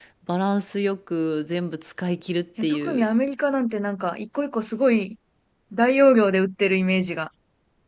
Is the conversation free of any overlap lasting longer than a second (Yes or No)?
Yes